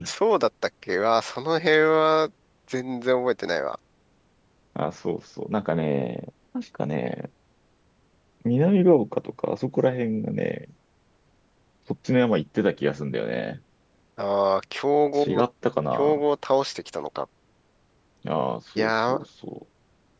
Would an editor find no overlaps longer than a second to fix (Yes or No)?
Yes